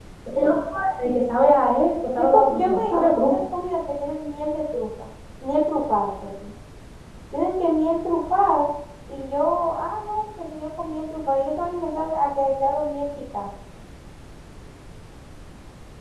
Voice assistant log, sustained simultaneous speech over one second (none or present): present